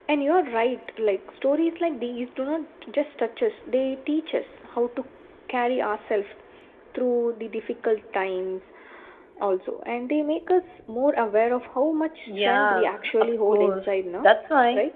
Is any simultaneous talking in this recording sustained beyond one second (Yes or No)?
Yes